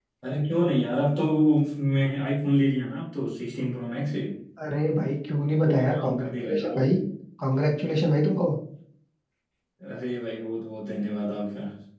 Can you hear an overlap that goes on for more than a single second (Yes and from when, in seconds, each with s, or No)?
Yes, from 5.6 s